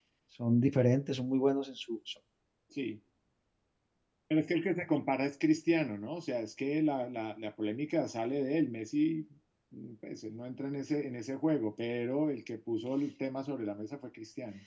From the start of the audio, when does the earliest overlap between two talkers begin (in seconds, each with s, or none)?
none